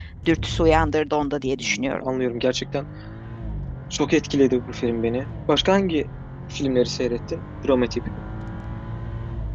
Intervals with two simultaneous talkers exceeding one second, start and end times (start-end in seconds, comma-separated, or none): none